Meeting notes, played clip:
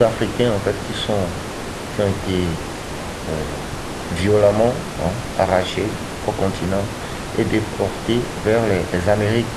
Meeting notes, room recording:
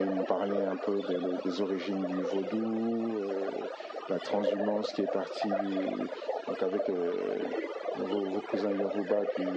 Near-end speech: present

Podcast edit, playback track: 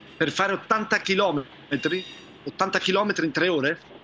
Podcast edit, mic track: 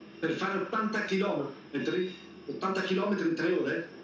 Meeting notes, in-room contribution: none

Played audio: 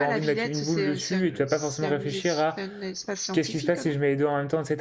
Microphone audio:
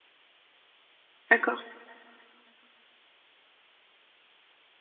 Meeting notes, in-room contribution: present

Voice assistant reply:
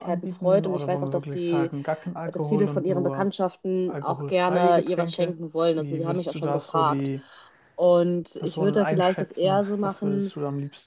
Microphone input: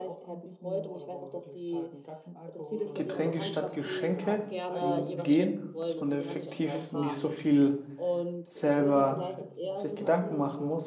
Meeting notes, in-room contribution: present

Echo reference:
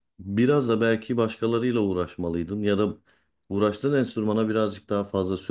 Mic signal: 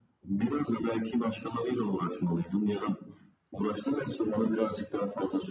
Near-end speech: none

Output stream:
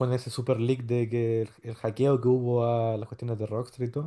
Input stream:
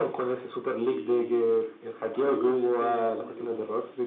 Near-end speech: present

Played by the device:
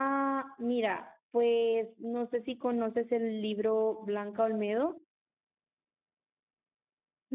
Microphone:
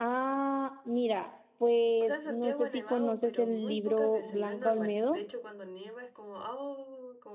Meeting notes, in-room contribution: present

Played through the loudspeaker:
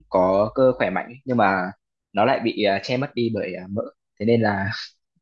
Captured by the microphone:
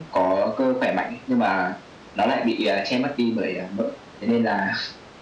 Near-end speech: none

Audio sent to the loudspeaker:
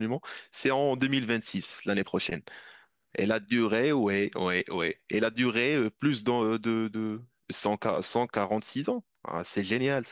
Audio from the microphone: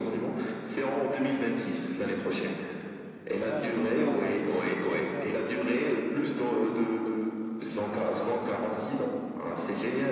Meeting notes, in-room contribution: present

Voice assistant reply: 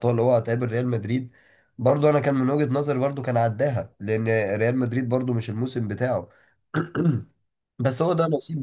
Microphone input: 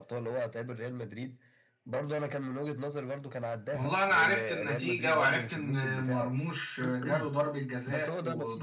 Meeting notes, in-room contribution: present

